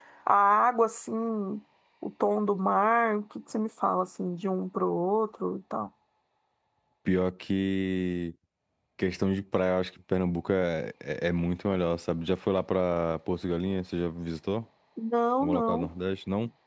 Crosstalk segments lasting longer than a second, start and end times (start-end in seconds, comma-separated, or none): none